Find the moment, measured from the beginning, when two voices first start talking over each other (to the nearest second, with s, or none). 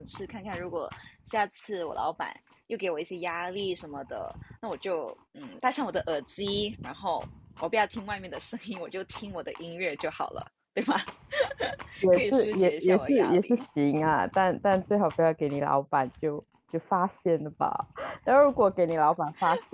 12 s